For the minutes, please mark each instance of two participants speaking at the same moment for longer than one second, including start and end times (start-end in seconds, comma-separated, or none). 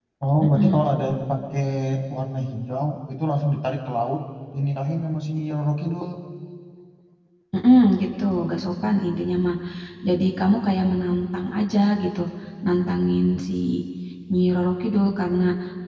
none